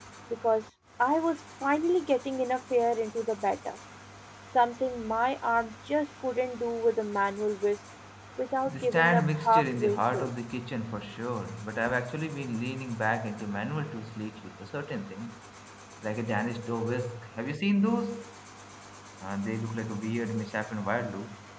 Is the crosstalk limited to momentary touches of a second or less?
No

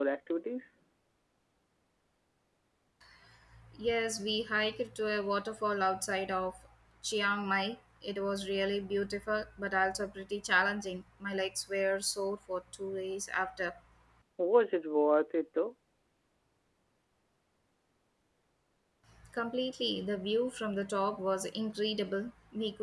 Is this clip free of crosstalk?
Yes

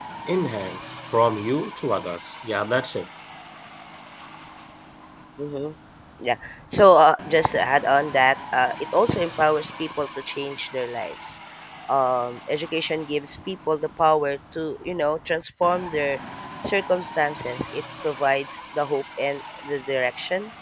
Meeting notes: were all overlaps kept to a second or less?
Yes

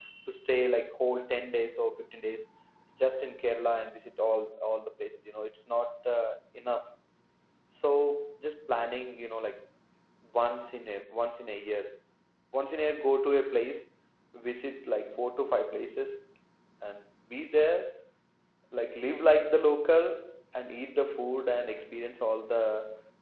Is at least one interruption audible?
No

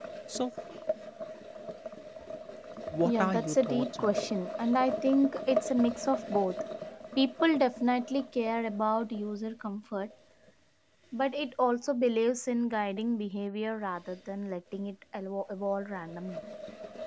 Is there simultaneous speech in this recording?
Yes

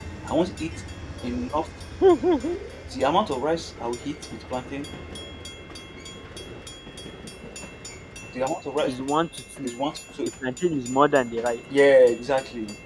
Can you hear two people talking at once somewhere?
No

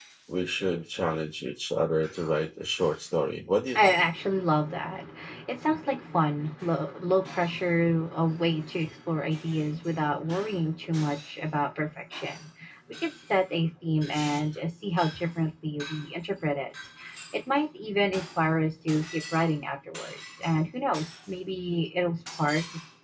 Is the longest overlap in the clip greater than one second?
No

